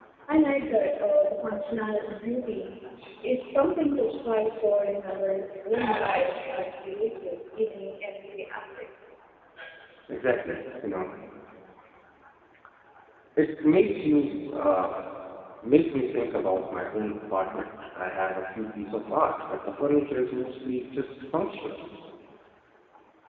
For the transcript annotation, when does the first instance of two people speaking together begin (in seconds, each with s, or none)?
none